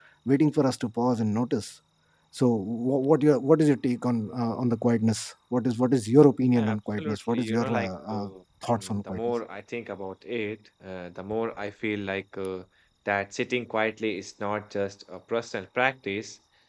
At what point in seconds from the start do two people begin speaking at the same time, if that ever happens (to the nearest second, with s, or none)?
7 s